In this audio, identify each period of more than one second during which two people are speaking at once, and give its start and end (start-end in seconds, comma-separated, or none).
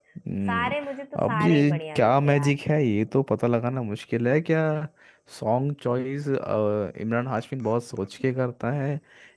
1.2-2.6